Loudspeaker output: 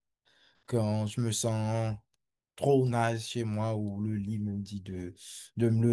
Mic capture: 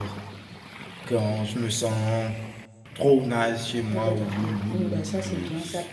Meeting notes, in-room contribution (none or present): present